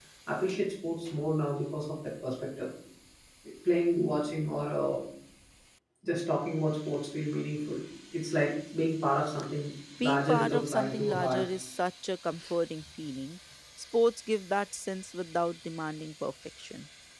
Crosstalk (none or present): present